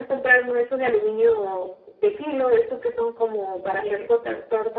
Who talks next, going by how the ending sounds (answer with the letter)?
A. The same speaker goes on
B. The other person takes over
A